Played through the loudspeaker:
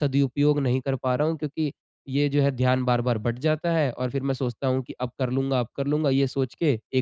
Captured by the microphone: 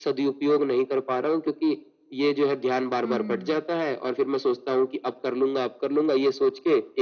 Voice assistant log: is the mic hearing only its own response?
No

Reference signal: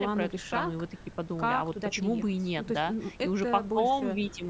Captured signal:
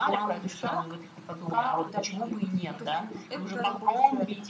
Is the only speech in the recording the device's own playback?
Yes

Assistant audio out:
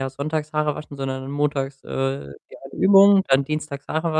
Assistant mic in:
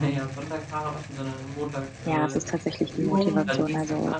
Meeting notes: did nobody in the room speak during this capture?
No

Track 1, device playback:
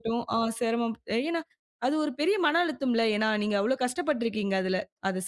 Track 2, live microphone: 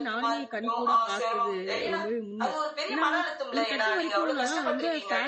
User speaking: Yes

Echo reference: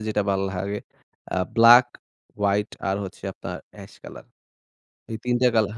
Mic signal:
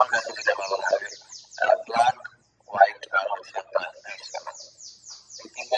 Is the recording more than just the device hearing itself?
No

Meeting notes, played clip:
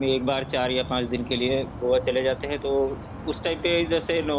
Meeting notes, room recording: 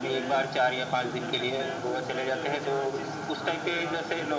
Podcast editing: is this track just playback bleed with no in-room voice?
No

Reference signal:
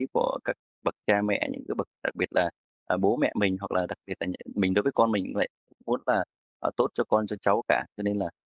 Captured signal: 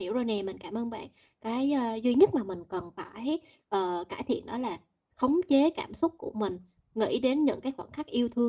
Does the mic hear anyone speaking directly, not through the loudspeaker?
Yes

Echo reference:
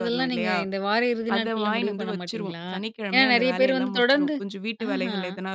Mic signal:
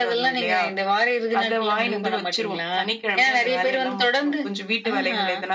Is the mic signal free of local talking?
Yes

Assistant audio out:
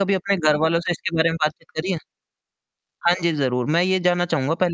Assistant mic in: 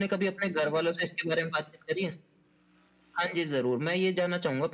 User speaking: No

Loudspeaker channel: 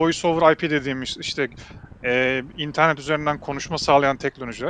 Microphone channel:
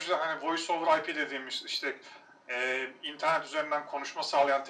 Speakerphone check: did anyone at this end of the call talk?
No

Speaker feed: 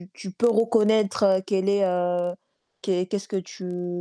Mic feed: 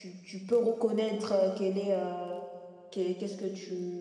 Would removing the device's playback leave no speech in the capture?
Yes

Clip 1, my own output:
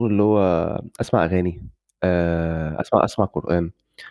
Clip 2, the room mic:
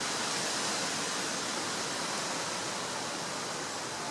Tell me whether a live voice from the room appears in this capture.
No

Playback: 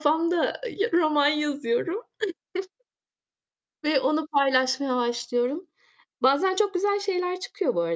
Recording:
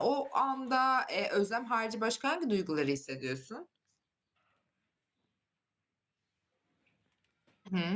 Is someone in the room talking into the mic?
Yes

